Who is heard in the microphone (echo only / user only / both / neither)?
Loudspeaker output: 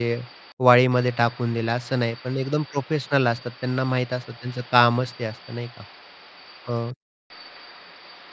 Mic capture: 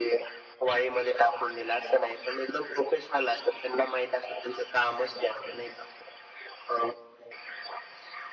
echo only